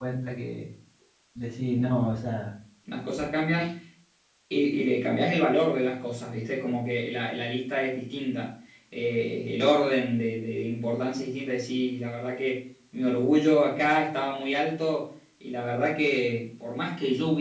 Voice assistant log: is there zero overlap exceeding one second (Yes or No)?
Yes